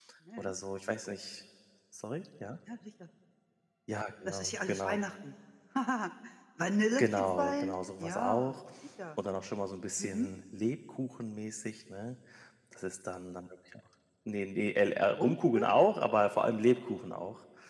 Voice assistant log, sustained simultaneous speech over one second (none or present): present